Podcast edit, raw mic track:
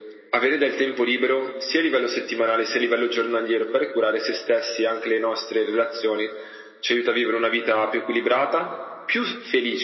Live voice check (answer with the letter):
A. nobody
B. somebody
A